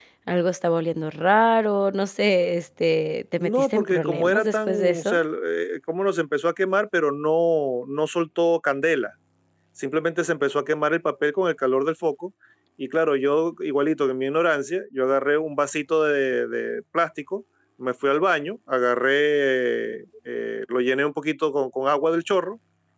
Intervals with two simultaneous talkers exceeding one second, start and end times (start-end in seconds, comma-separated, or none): 3.4-5.2